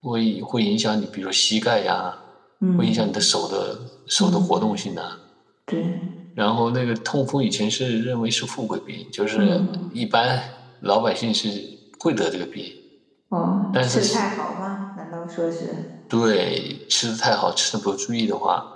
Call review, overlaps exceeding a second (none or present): none